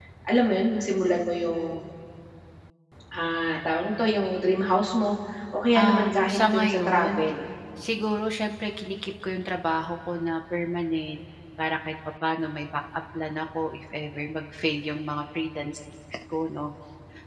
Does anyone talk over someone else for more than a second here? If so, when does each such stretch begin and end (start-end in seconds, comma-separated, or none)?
5.8-7.3